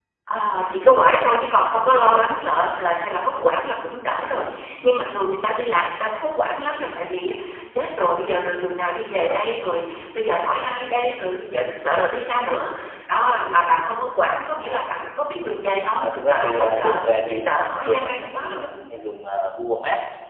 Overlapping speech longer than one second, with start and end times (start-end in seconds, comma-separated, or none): 15.9-18.6